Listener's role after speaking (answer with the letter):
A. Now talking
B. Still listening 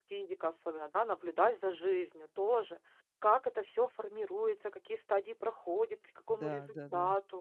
B